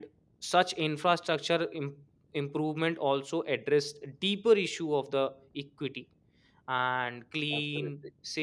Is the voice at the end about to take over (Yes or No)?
No